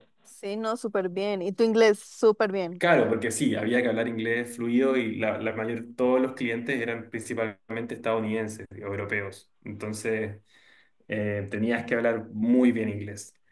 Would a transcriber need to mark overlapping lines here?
No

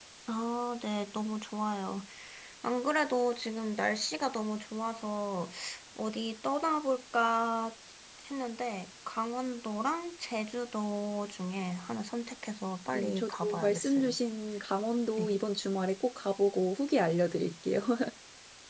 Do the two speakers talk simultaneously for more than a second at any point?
Yes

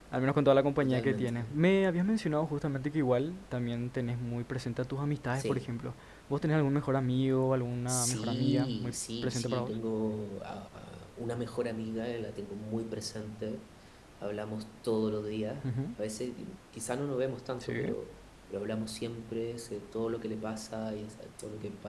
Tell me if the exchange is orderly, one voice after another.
No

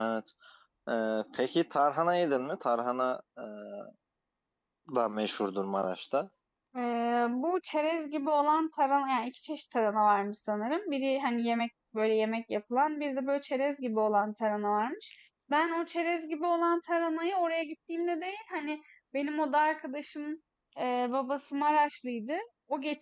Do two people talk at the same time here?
No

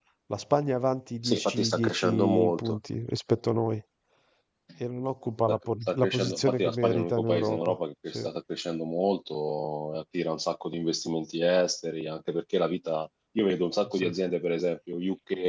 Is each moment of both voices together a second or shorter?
No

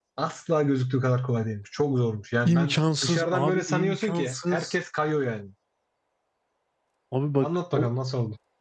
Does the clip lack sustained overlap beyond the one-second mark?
No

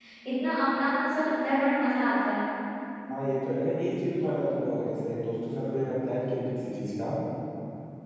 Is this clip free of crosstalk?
Yes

